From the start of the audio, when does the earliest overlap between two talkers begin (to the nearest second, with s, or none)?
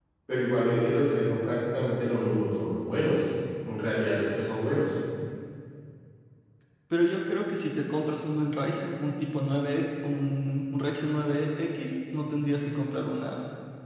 none